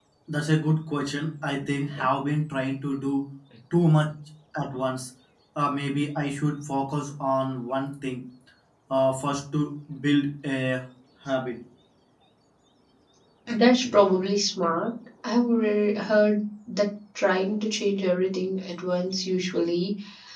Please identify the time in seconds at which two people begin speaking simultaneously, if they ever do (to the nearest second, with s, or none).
none